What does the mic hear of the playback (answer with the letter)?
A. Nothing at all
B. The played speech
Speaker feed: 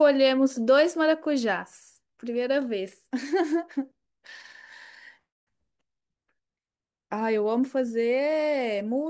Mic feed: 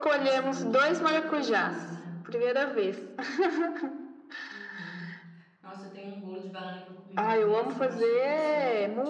B